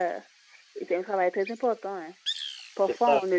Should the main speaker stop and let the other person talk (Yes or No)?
No